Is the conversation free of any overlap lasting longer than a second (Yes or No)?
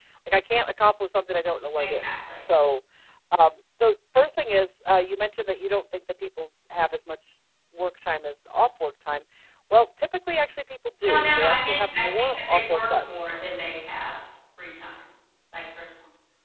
No